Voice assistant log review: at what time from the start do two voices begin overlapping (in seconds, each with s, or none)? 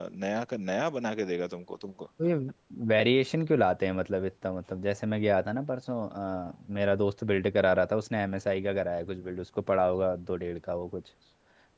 none